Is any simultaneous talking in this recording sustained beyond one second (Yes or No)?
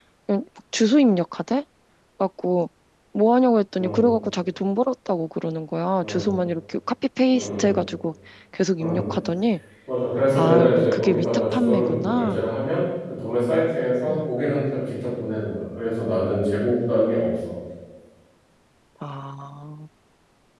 Yes